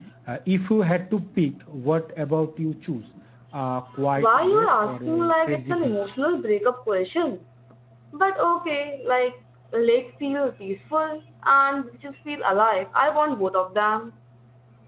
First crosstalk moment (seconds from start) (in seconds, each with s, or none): 4.2 s